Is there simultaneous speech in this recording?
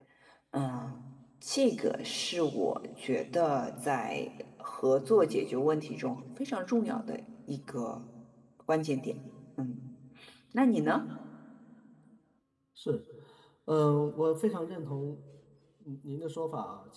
No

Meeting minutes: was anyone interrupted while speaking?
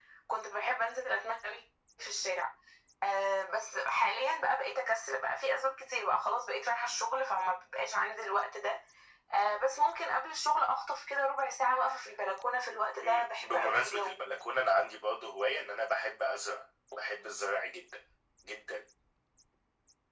Yes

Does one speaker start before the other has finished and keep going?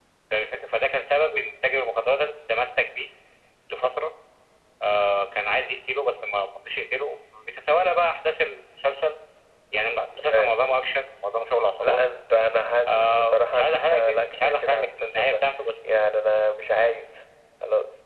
Yes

